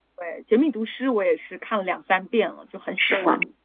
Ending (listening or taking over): taking over